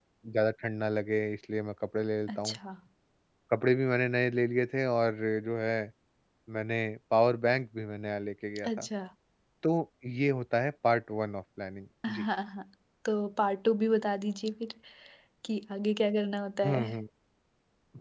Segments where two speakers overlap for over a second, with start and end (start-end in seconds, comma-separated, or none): none